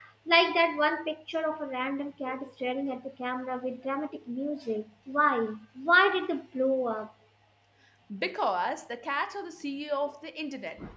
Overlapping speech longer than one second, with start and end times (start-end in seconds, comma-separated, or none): none